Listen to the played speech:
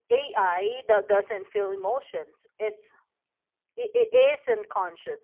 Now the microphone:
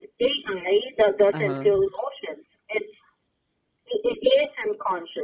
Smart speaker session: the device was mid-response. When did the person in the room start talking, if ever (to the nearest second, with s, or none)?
1 s